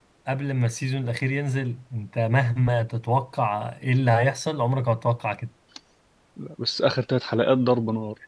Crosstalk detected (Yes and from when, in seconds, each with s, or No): No